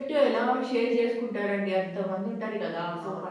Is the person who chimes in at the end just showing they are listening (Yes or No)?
Yes